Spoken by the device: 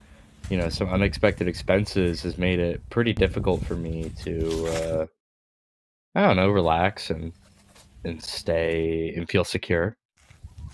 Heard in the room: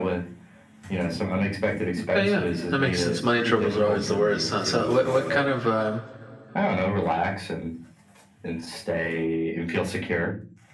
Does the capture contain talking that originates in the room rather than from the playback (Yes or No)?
Yes